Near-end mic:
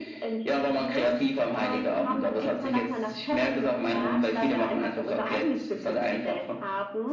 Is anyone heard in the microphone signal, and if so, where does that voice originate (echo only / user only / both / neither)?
echo only